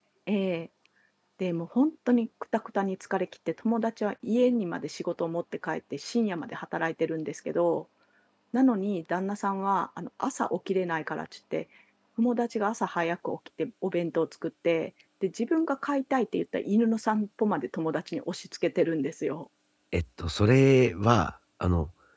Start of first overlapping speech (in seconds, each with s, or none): none